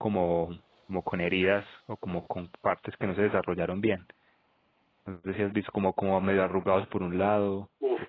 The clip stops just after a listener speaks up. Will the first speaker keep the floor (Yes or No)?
No